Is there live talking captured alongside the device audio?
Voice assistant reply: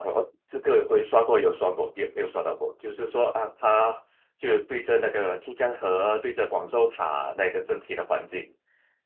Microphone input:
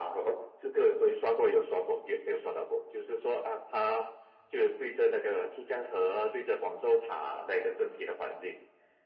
No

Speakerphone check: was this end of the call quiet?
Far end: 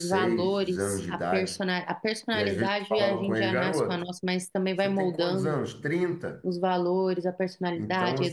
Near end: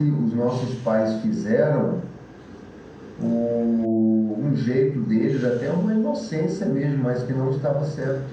No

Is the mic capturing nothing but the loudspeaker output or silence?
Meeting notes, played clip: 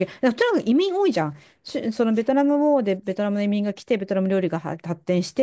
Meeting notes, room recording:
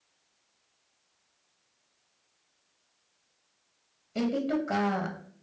No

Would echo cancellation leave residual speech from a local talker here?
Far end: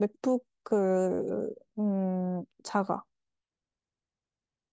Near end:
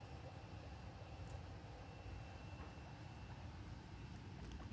No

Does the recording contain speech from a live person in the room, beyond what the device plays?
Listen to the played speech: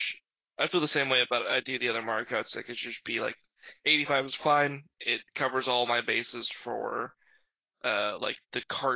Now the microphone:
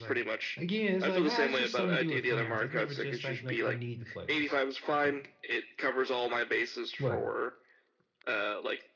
Yes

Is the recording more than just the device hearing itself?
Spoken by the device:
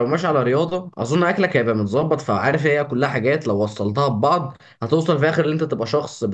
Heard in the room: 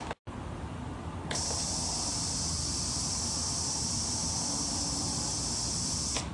No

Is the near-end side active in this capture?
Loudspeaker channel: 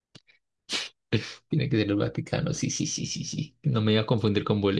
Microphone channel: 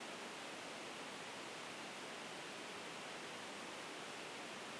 No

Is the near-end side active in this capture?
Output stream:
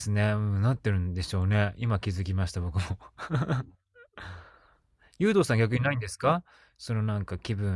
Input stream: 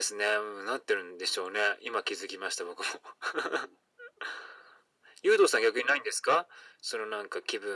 No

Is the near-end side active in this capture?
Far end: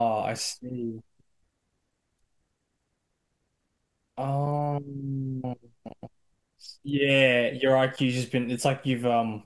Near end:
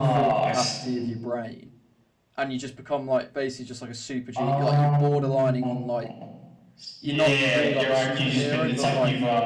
Yes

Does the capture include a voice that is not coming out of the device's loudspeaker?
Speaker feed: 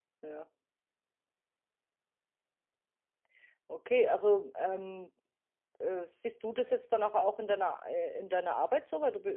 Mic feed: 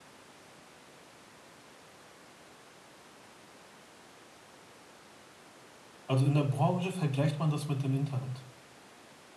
Yes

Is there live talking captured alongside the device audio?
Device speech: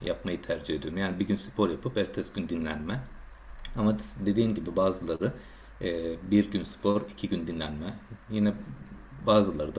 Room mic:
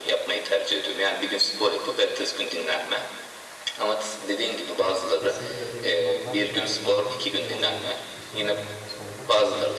Yes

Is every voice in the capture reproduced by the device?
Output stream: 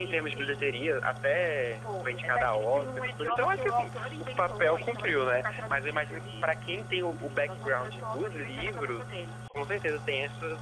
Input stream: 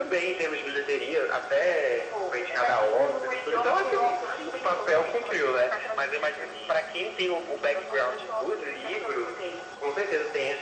Yes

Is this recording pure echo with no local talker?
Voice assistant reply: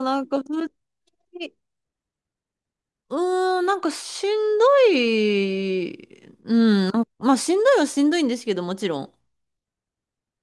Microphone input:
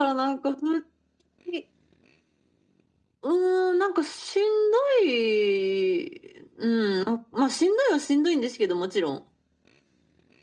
Yes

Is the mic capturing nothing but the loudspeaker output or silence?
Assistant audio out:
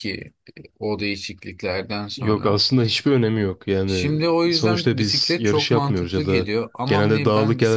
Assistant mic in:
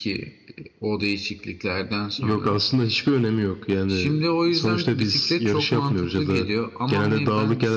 Yes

